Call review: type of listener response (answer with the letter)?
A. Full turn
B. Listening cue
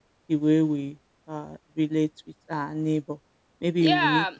A